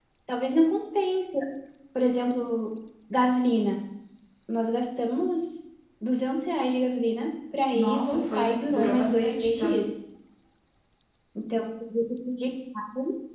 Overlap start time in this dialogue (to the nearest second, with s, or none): 8 s